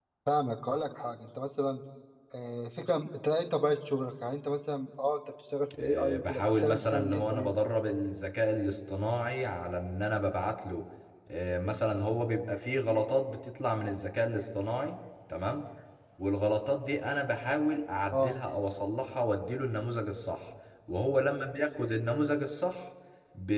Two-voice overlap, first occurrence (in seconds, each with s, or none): 5.8 s